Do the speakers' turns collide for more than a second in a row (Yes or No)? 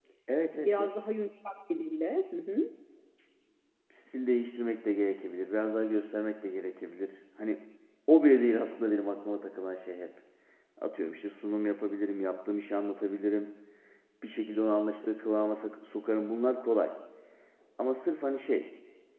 No